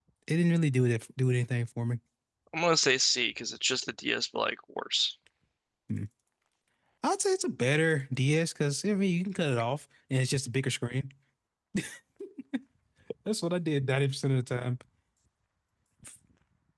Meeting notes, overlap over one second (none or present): none